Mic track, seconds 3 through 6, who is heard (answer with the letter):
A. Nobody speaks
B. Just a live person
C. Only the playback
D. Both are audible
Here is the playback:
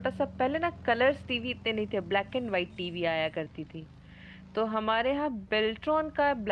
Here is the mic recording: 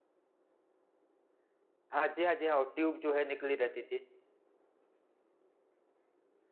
B